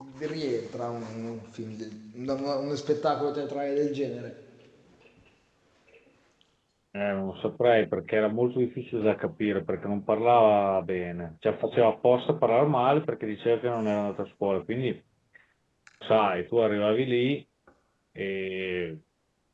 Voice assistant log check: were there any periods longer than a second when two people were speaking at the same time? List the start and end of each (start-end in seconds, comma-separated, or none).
none